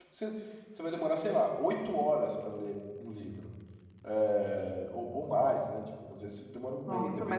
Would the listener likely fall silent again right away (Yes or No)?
No